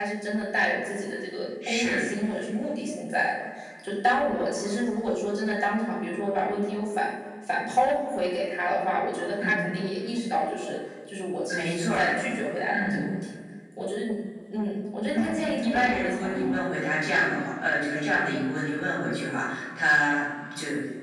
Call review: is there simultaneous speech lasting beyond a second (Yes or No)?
Yes